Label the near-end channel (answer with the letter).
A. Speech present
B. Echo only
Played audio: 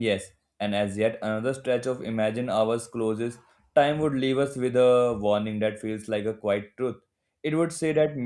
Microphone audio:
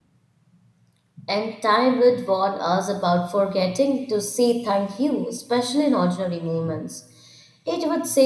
A